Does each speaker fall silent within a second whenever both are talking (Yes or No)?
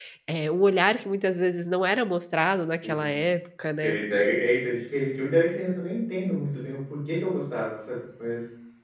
Yes